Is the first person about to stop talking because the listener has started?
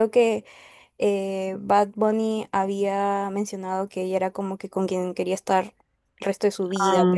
No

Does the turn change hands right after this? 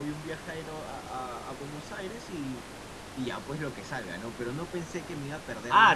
Yes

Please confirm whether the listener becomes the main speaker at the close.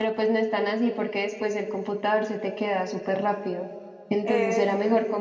No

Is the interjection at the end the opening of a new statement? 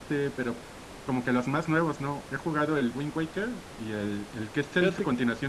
No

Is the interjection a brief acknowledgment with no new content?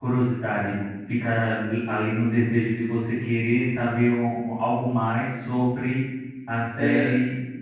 Yes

